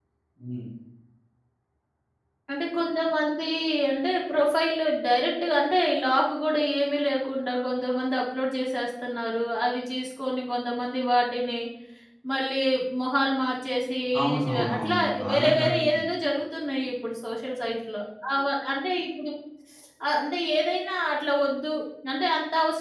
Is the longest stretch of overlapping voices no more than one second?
No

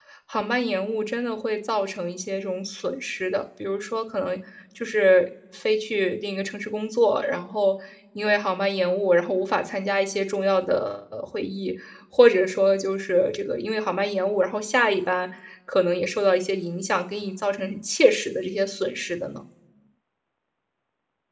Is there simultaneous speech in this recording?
No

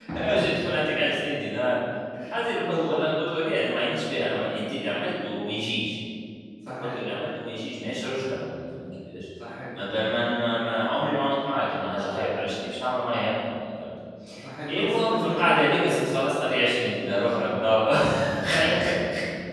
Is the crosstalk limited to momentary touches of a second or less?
No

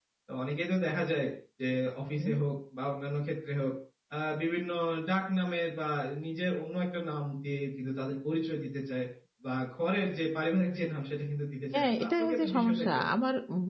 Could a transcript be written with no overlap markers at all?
No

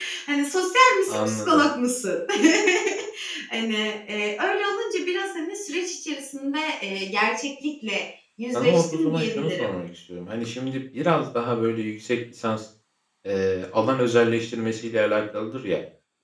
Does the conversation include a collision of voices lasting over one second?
Yes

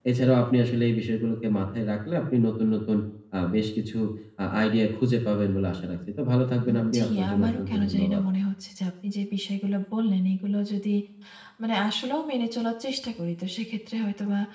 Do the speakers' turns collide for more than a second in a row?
Yes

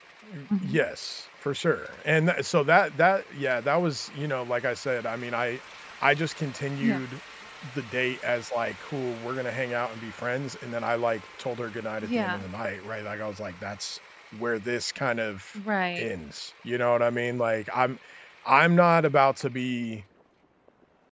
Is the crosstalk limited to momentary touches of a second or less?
Yes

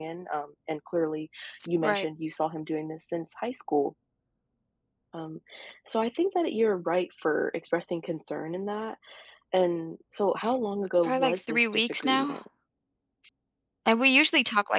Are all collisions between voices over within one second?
No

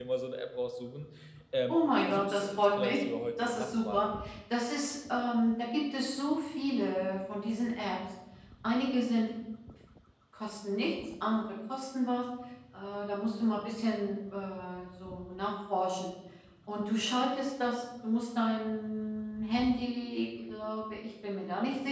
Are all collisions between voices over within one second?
No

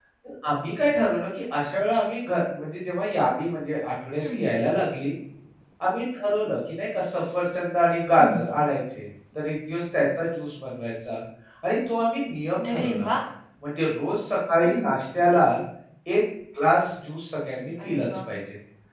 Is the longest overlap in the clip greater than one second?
No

